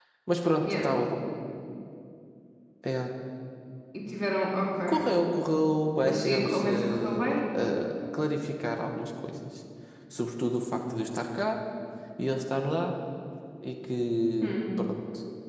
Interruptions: present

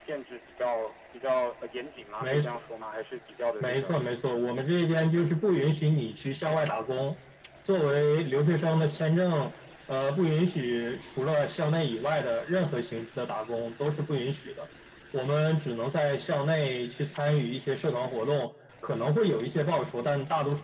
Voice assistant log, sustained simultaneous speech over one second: none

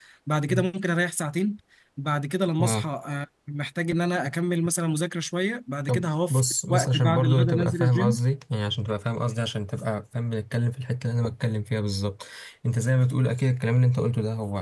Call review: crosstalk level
present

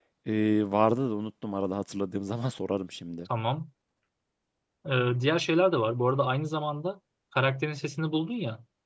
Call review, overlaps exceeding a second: none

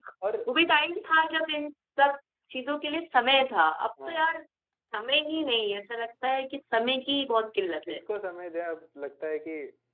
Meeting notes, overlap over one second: none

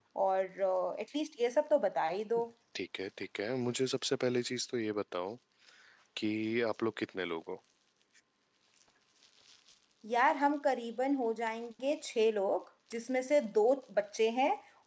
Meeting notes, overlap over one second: none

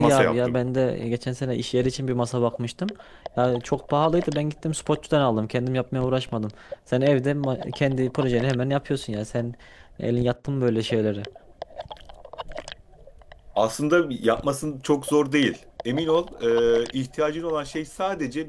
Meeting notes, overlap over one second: none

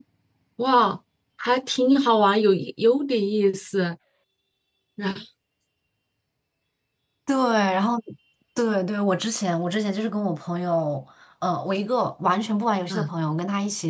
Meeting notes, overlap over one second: none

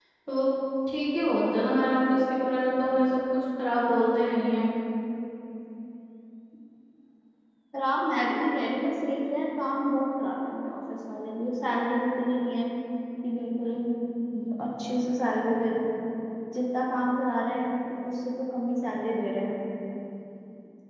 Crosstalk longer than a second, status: none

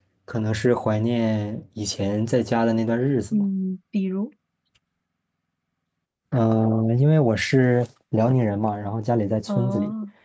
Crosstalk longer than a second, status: none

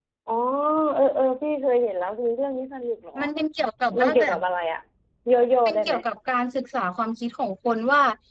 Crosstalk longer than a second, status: none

